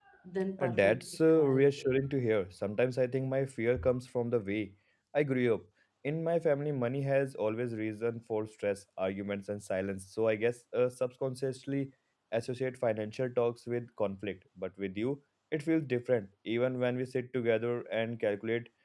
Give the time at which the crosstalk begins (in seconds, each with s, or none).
0.6 s